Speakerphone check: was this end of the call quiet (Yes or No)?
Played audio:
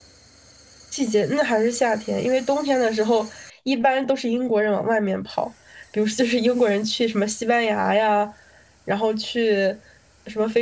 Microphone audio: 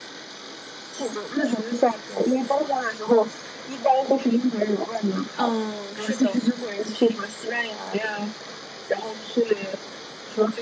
No